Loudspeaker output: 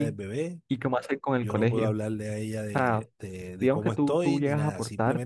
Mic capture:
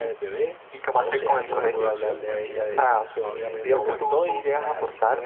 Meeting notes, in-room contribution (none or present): present